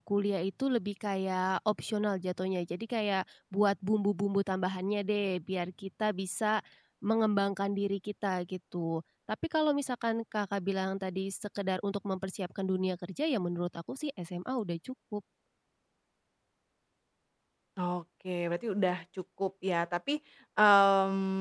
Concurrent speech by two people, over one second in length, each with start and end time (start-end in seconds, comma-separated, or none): none